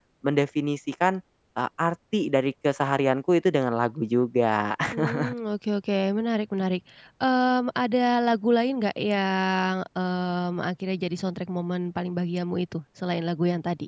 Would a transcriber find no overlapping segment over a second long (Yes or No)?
Yes